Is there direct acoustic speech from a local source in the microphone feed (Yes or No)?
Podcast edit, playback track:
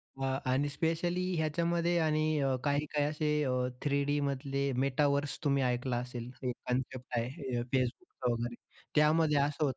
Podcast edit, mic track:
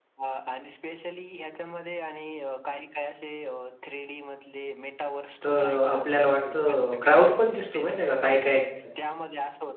Yes